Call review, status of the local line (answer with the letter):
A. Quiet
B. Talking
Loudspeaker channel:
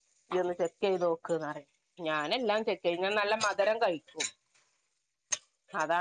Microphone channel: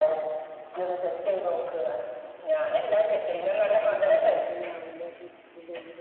B